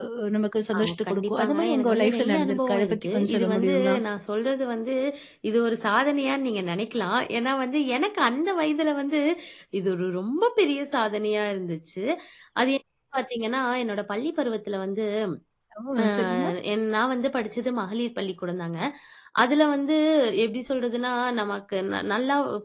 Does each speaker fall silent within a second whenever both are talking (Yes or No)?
No